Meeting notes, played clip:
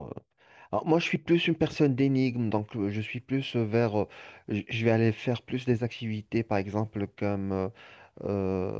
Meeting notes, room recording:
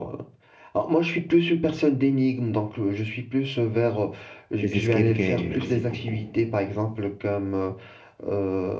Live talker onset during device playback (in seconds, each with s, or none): 4.6 s